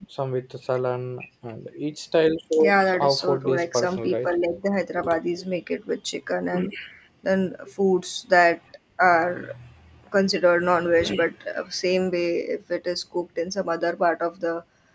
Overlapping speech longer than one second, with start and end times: 2.5-4.3

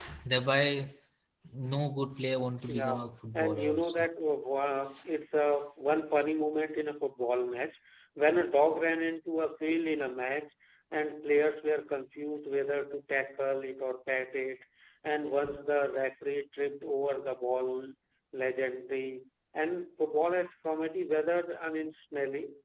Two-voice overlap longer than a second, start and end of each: 2.7-4.1

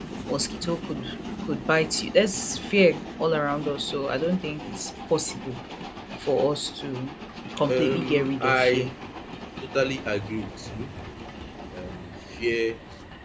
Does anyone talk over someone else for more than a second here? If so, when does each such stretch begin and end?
7.7-8.9

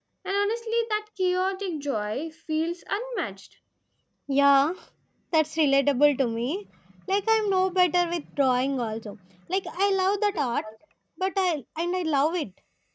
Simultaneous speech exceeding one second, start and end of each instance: none

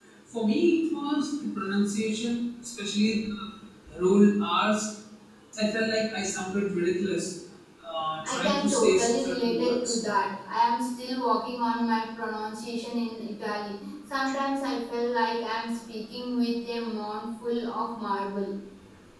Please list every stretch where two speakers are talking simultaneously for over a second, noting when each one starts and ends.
8.2-10.0

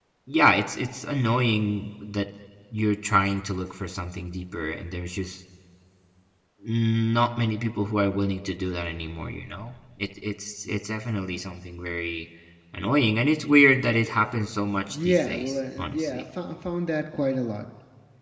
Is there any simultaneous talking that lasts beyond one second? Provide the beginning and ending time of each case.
14.9-16.2

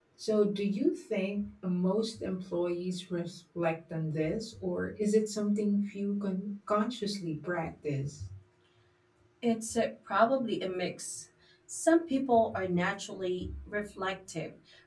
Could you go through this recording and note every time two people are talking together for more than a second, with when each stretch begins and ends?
none

